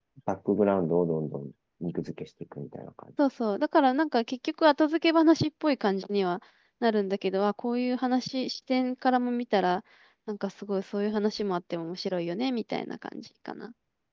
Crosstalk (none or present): none